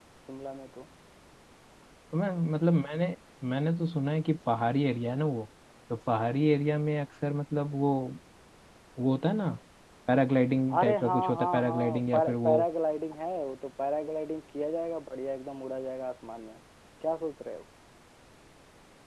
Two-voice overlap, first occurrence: 11 s

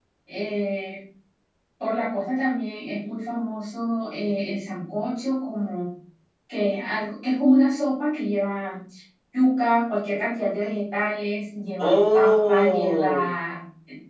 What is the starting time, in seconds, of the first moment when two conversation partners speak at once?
12 s

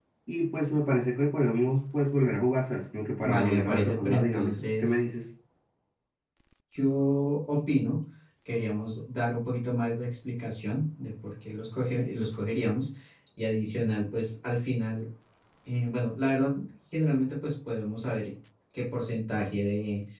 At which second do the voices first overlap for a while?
3 s

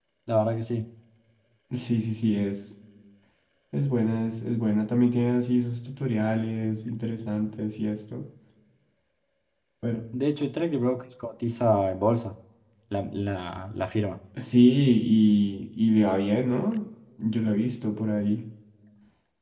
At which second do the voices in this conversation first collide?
none

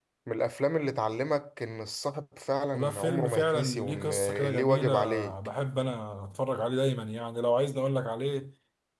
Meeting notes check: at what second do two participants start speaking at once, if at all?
3 s

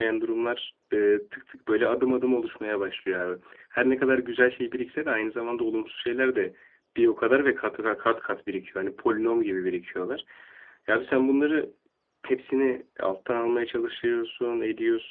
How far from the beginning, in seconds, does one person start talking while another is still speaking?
none

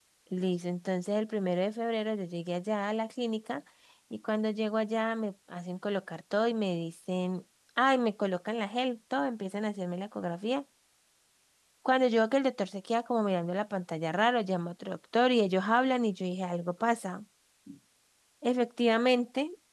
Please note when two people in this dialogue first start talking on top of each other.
none

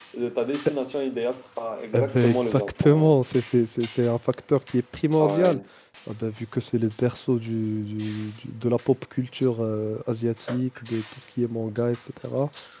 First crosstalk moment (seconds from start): 2 s

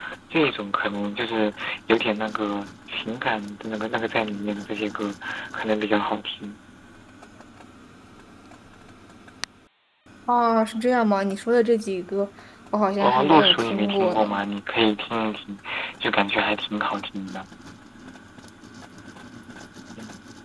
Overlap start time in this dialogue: 13 s

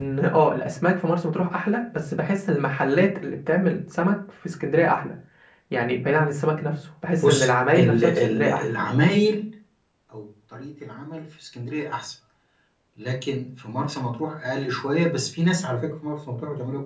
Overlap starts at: 7 s

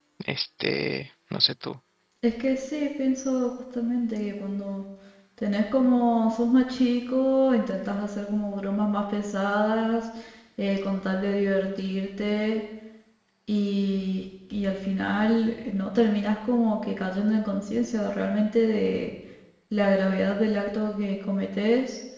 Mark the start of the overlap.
none

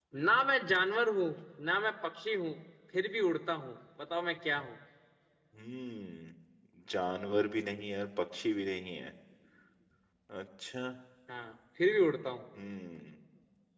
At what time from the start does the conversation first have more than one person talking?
none

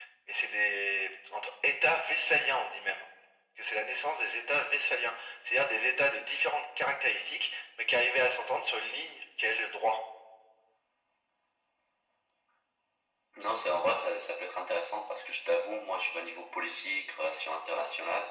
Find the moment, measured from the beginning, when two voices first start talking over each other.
none

